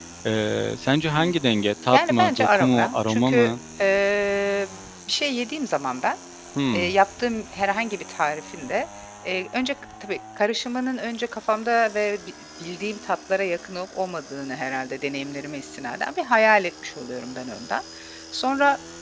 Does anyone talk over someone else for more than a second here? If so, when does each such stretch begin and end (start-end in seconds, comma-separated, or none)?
1.9-3.4